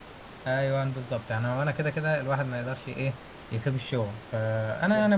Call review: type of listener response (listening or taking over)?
listening